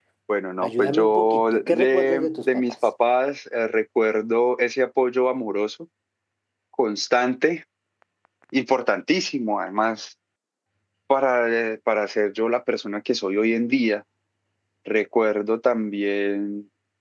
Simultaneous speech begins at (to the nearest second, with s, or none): 1 s